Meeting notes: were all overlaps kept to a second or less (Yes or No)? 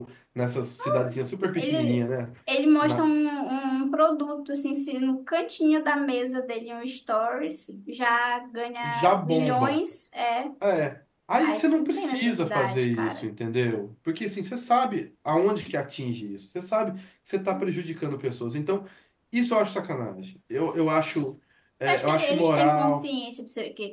No